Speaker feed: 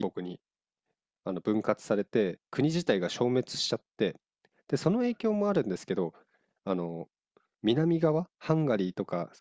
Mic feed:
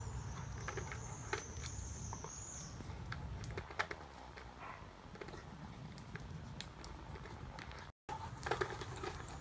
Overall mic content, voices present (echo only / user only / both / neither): neither